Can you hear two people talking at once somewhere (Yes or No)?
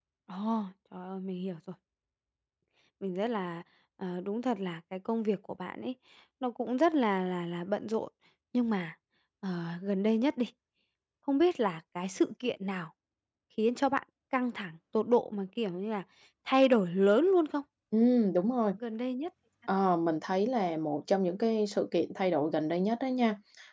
No